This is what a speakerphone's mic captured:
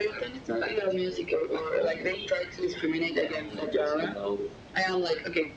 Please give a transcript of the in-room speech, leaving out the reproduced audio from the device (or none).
none